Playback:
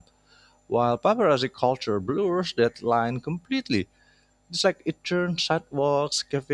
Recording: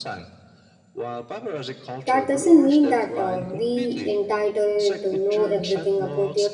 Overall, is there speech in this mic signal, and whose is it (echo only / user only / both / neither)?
both